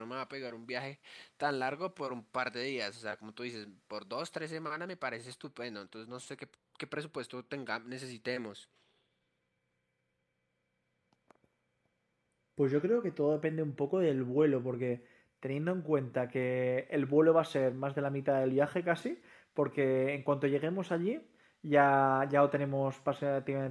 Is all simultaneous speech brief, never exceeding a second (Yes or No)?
Yes